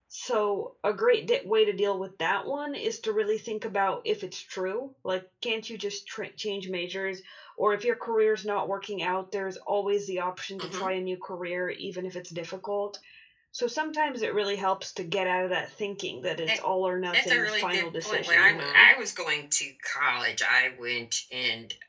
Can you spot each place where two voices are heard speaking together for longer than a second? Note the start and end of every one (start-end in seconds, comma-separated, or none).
17.1-18.9